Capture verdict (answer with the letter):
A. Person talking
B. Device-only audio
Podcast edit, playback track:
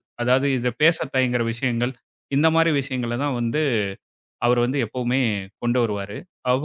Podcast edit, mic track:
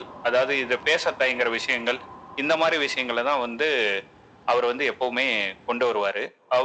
B